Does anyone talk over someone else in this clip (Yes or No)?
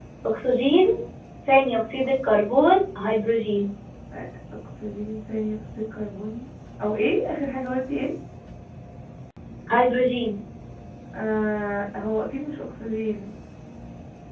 No